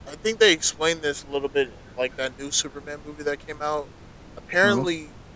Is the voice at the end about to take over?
No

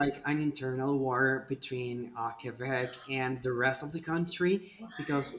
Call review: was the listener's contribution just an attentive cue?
Yes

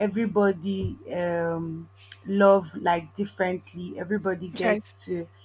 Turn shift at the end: No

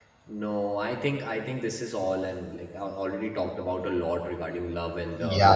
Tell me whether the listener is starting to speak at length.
Yes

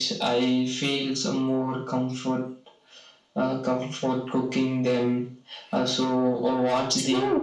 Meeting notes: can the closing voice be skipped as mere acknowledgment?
No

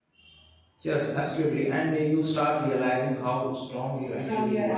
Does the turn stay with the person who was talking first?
No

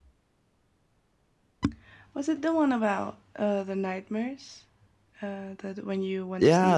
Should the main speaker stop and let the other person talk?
Yes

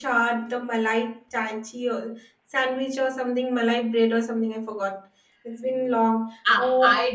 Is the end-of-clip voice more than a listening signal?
Yes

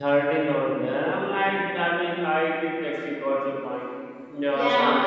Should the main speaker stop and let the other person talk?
Yes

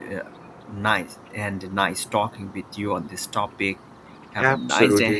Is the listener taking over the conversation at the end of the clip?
Yes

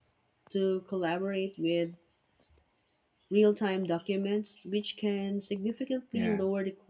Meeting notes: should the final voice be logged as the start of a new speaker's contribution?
No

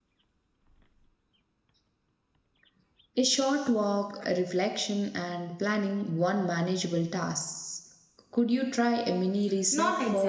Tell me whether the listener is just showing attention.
No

